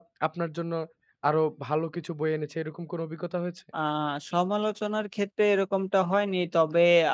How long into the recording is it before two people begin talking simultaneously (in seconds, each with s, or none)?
none